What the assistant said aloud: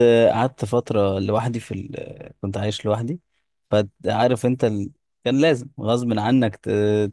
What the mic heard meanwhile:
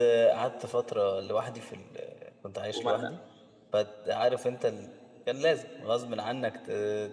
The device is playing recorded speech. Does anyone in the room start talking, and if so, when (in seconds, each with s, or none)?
2.7 s